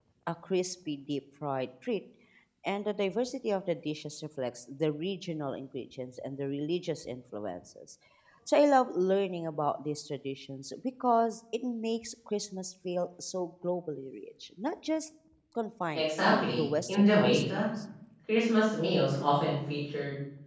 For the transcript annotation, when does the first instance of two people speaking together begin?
15.9 s

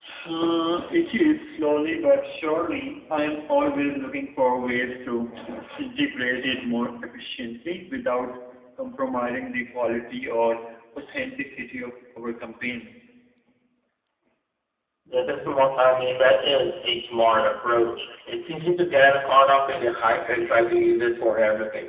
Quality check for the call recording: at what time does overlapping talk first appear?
none

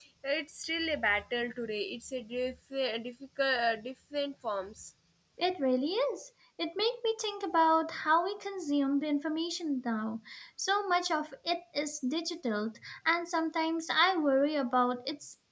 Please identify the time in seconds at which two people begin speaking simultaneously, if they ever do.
none

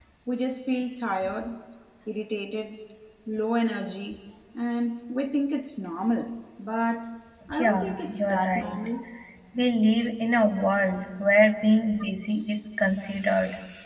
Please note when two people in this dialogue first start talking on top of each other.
7.6 s

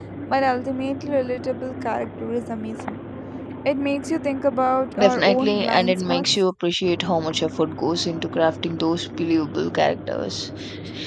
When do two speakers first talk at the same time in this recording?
5.0 s

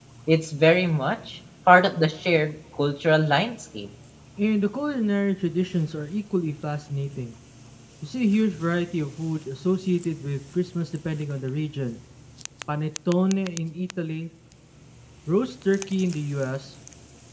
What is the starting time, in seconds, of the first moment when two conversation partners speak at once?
none

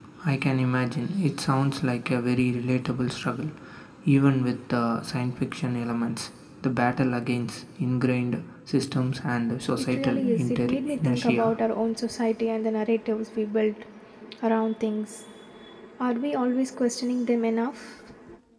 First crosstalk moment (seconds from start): 9.8 s

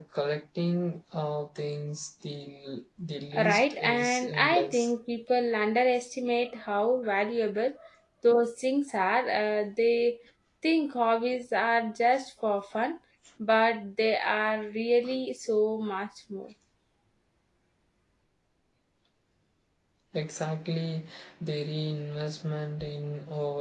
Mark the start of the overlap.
3.4 s

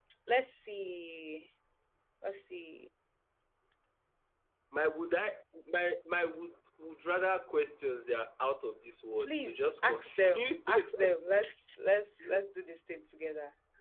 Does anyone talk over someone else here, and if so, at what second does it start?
9.2 s

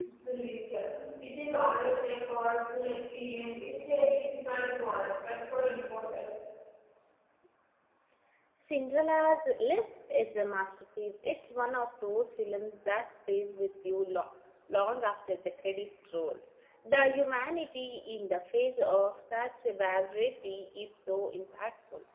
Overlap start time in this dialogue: none

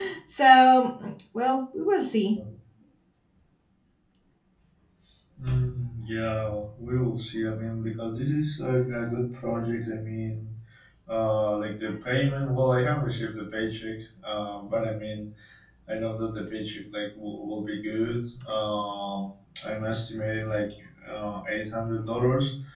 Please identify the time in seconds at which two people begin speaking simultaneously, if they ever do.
none

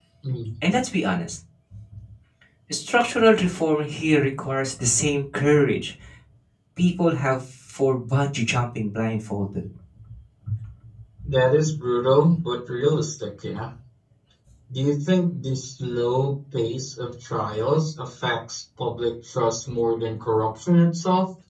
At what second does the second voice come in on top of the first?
none

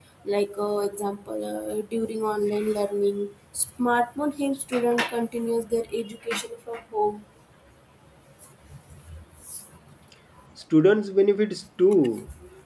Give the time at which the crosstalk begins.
none

